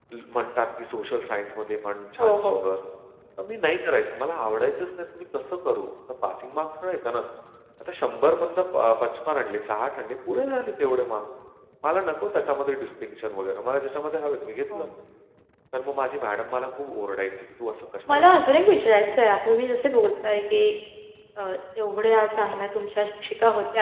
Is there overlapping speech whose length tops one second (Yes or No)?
No